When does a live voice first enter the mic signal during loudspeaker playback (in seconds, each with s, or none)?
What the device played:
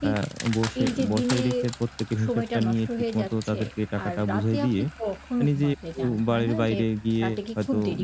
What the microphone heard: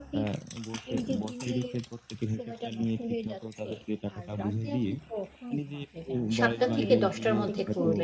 6.4 s